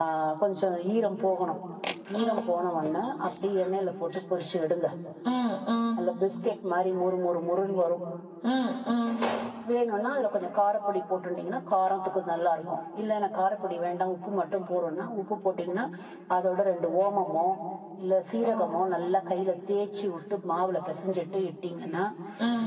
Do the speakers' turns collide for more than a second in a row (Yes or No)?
No